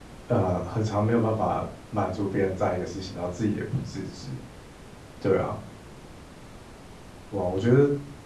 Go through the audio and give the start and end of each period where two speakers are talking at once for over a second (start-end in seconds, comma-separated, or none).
none